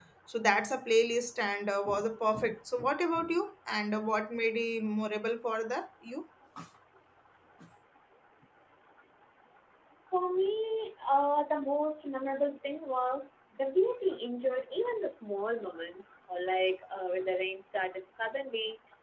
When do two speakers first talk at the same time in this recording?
none

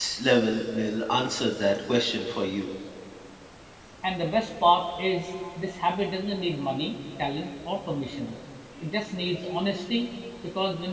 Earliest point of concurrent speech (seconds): none

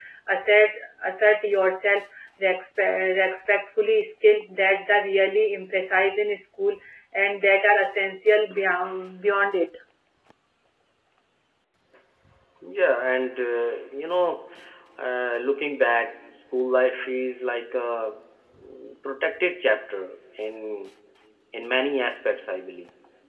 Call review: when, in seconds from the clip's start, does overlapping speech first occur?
none

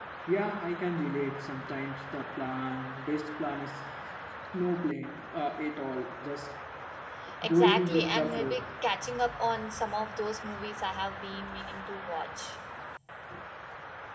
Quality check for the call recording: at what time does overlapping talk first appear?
7 s

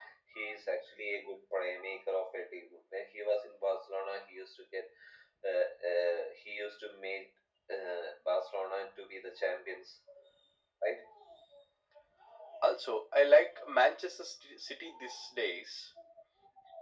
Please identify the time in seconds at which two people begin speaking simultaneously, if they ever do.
none

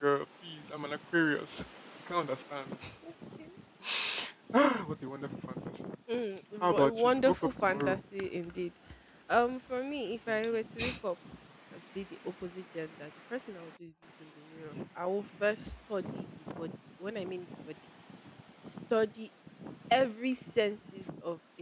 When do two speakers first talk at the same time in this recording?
7 s

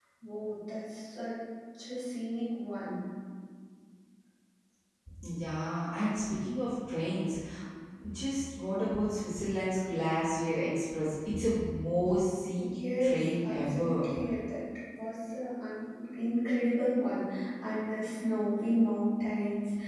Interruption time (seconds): 13 s

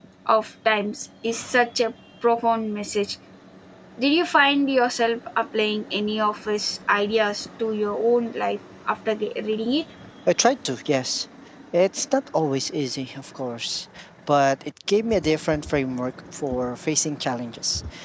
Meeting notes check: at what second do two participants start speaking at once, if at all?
none

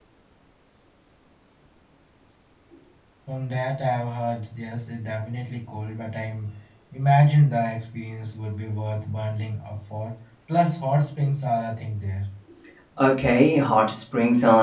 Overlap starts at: none

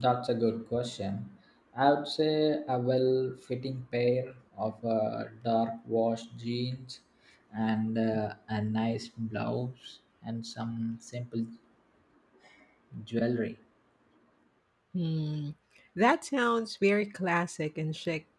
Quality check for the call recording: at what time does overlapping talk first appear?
none

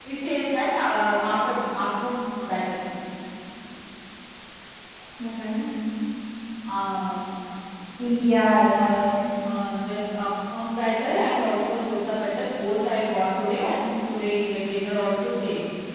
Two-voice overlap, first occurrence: none

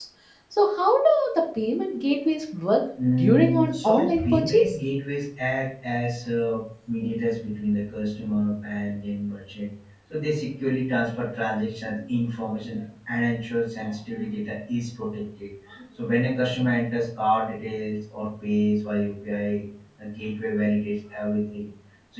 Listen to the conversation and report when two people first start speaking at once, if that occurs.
3 s

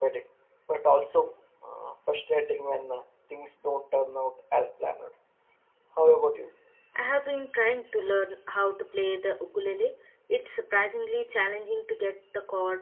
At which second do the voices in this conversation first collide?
none

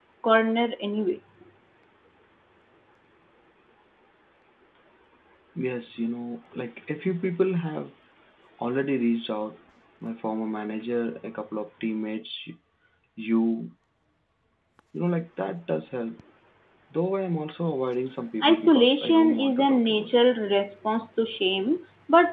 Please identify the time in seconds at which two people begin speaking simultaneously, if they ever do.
18 s

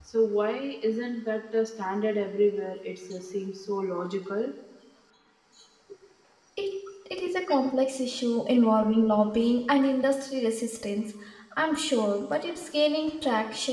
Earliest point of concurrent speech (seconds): none

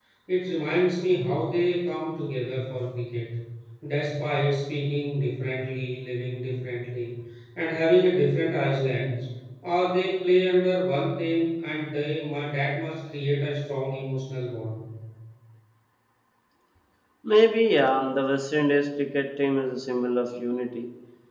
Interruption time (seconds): none

